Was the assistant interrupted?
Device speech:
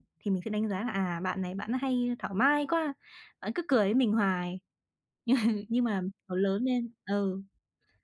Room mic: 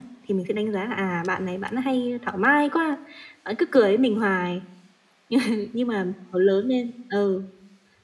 No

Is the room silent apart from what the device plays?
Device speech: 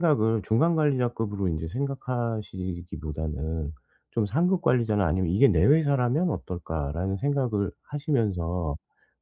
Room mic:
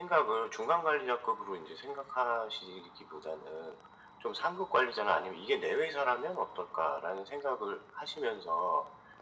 Yes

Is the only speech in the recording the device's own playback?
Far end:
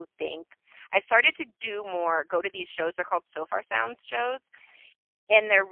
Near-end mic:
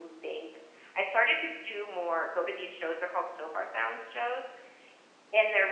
Yes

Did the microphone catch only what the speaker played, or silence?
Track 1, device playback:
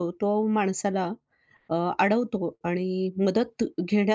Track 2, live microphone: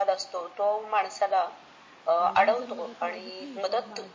No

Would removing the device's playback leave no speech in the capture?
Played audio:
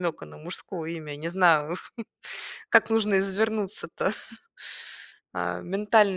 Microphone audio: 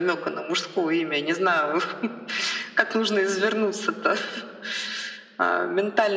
Yes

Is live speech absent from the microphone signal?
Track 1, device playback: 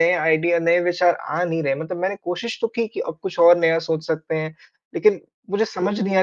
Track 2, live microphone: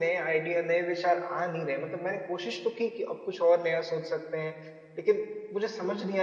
Yes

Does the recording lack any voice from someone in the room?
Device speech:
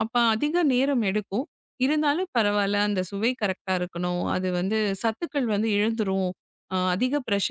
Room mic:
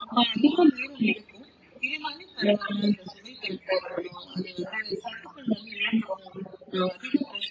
Yes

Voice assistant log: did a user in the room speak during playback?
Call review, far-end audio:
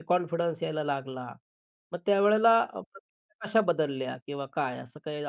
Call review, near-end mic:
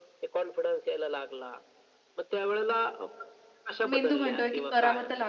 Yes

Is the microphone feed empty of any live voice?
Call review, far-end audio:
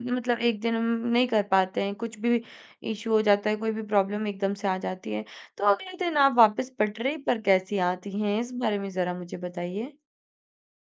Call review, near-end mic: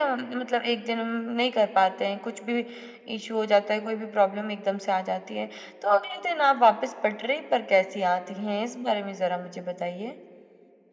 Yes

